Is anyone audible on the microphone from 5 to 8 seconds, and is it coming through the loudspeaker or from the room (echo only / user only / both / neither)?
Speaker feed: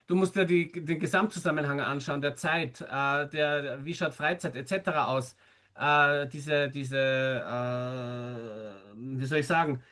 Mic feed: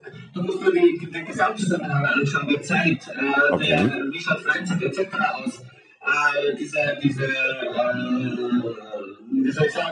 echo only